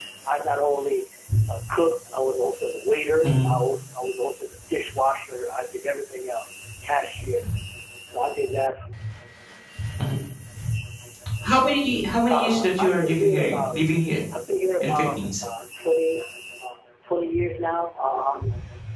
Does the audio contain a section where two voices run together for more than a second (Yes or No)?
Yes